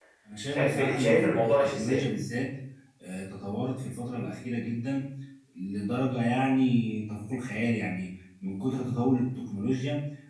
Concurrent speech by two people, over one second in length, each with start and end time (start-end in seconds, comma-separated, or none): 0.5-2.0